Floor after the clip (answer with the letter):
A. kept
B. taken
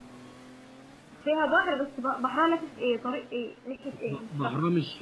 B